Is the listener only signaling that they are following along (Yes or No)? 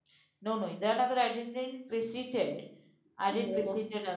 Yes